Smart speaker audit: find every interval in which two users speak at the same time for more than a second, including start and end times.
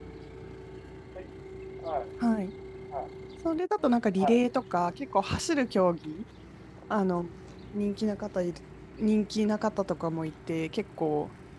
none

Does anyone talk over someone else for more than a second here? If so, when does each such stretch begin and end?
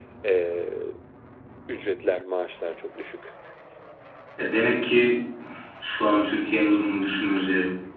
none

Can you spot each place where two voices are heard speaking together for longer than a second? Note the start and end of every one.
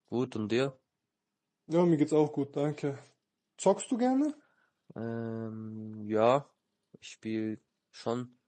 none

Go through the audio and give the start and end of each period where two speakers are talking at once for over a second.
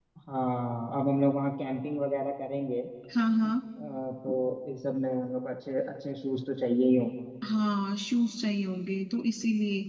none

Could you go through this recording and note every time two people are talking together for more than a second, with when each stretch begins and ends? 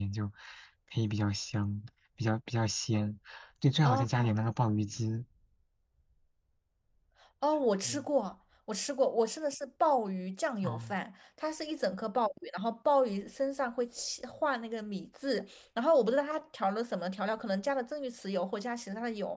none

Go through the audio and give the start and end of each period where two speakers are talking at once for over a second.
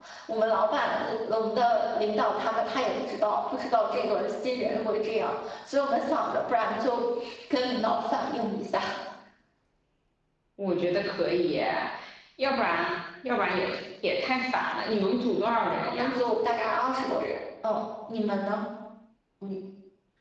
none

